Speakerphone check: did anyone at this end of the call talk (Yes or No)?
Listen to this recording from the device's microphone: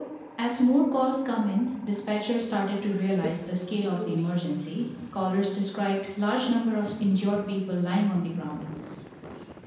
Yes